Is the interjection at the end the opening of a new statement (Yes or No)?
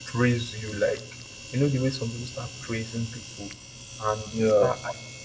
No